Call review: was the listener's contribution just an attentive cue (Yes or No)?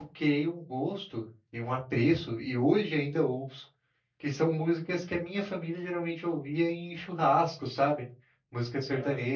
Yes